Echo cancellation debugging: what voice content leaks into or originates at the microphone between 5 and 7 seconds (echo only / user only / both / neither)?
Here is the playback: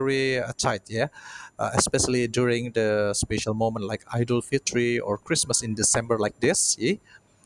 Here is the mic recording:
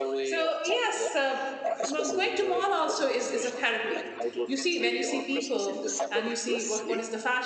both